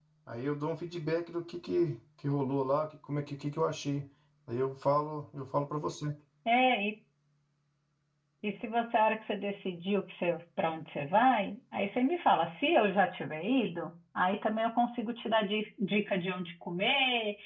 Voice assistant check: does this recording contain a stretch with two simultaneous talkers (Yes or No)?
No